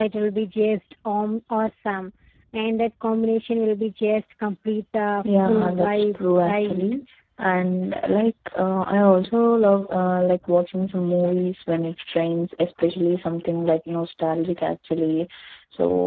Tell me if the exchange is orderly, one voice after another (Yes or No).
No